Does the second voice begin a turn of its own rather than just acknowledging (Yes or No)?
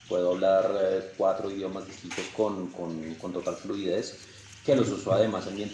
No